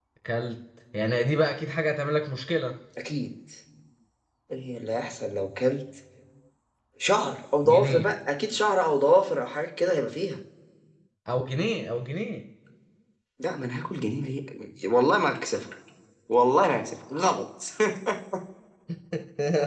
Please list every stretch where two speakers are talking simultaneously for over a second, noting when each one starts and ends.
none

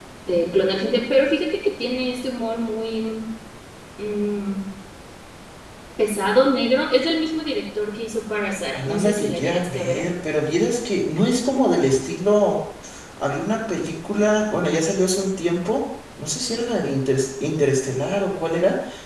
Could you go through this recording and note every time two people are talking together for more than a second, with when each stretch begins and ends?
8.7-10.0

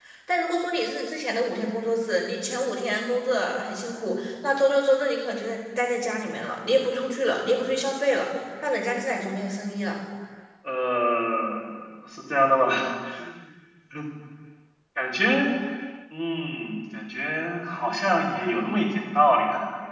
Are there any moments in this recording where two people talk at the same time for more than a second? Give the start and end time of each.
none

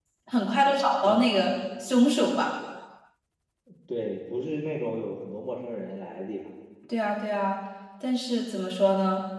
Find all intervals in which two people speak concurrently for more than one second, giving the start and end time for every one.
none

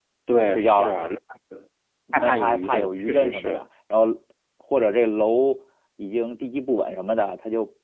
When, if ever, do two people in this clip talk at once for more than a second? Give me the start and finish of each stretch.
2.1-3.6

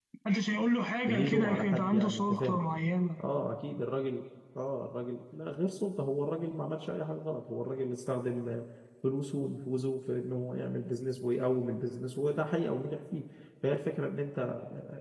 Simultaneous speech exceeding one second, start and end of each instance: 1.1-2.6

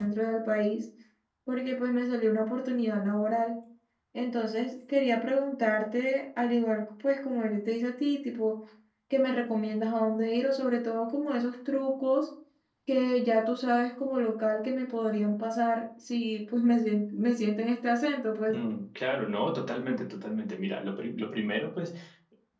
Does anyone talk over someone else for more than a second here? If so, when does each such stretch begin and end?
none

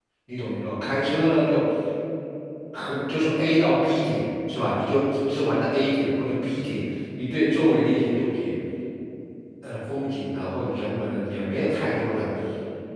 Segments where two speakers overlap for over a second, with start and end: none

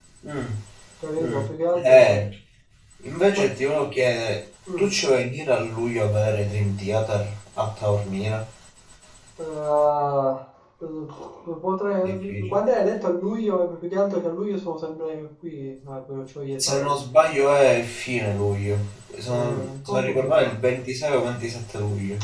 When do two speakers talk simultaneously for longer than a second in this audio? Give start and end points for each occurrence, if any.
19.3-20.6

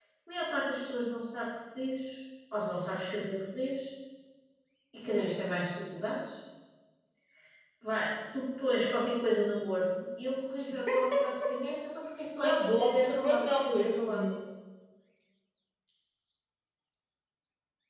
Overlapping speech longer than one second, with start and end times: 12.4-14.2

